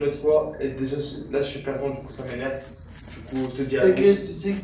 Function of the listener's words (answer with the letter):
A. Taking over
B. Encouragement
A